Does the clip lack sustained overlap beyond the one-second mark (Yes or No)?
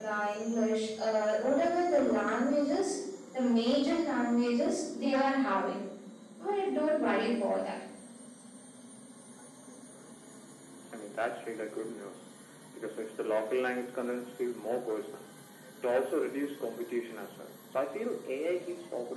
Yes